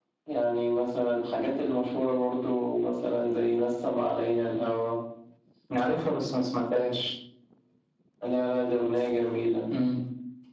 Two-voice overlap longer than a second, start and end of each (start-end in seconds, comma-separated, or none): none